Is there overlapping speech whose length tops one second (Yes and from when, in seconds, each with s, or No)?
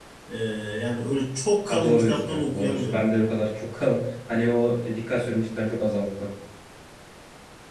Yes, from 1.7 s